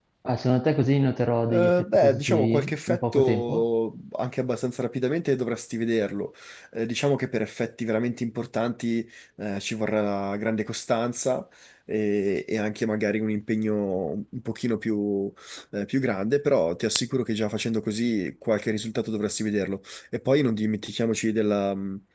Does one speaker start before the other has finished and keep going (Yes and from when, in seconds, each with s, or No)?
Yes, from 1.5 s